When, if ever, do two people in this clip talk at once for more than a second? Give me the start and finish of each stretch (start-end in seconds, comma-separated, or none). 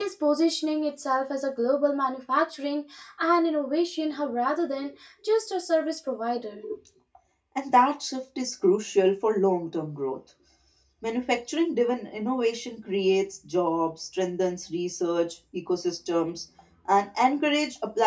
none